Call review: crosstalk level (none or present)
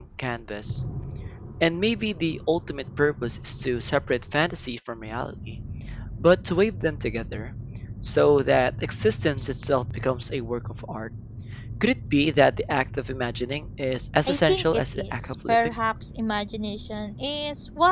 present